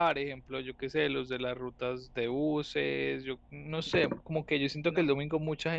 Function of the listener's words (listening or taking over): listening